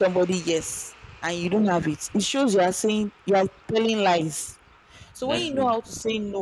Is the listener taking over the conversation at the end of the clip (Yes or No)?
No